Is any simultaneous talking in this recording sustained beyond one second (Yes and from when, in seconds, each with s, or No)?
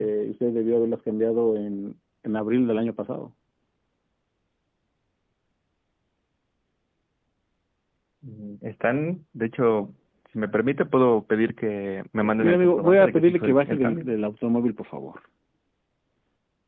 Yes, from 12.2 s